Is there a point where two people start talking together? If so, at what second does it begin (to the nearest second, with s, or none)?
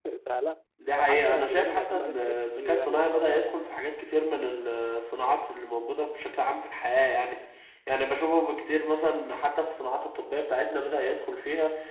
1 s